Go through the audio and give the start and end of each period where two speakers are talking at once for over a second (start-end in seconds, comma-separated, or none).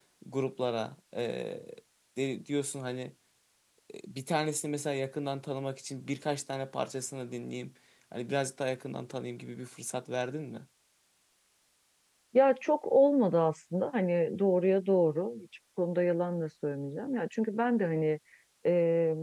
none